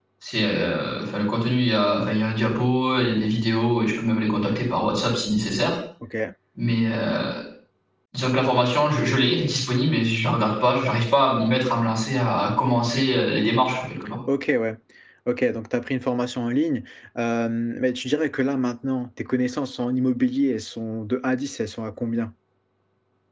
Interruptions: none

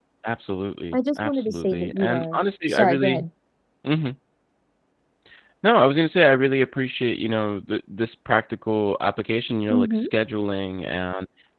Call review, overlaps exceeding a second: present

